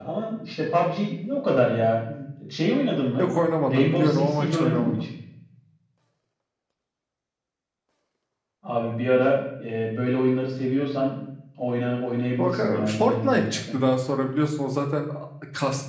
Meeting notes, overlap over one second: present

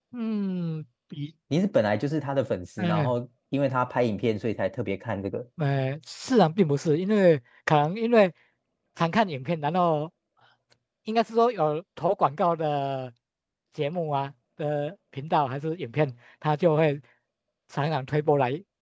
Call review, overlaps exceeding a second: none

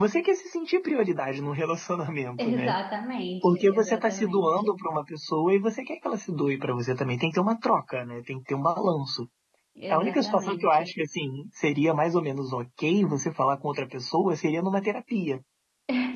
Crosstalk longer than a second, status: present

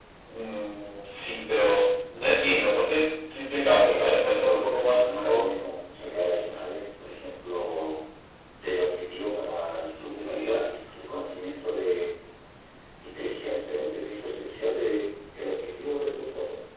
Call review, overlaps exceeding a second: present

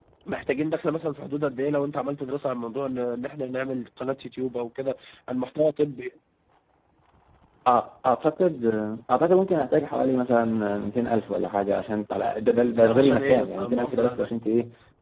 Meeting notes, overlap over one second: present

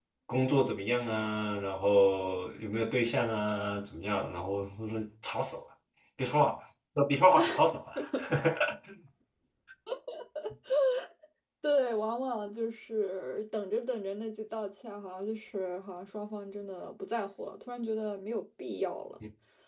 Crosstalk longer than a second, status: none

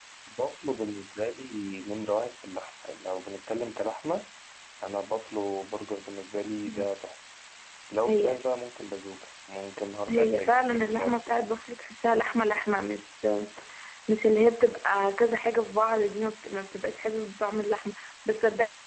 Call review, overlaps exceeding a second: present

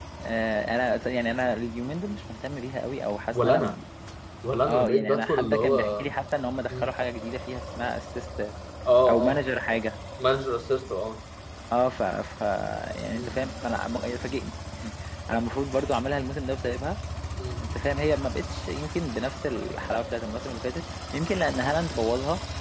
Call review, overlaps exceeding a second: present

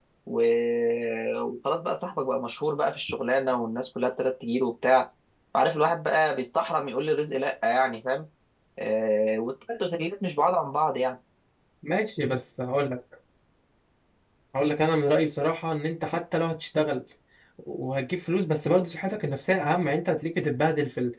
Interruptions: none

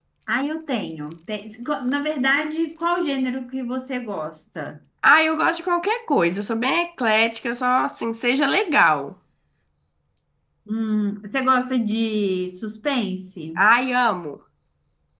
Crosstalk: none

